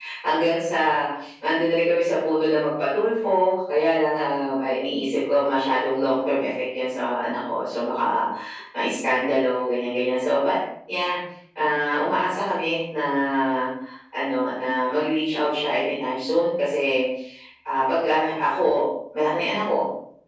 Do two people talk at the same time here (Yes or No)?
No